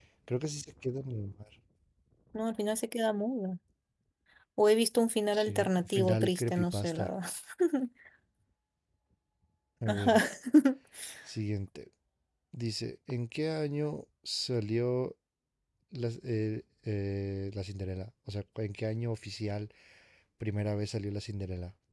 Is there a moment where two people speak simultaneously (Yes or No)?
Yes